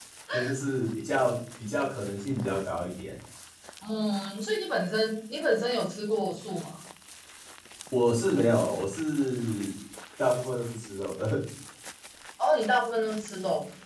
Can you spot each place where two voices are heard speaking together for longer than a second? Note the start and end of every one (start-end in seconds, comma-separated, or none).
none